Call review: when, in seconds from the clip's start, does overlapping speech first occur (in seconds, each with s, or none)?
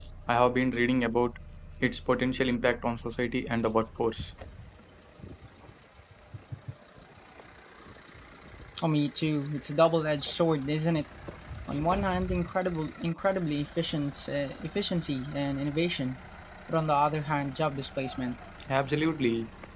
none